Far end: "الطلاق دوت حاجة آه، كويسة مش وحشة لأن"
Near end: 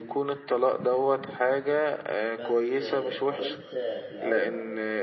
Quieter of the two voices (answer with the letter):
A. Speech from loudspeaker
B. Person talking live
B